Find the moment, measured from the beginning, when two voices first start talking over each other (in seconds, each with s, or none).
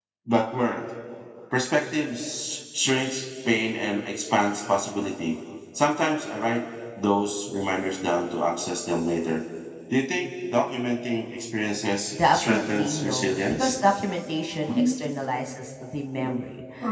12.1 s